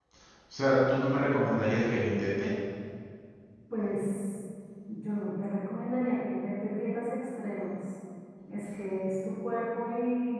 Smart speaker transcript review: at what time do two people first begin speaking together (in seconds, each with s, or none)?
none